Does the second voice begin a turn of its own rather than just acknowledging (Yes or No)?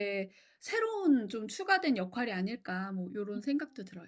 Yes